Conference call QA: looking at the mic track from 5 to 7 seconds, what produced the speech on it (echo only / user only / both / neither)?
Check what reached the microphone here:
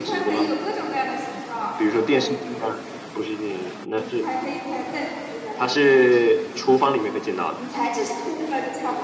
both